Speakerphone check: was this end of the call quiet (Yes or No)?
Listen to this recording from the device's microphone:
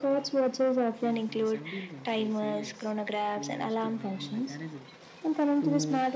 No